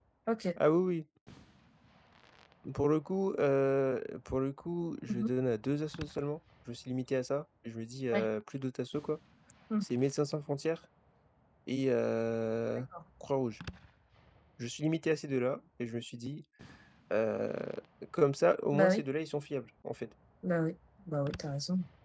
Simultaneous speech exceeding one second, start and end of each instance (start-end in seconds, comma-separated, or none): none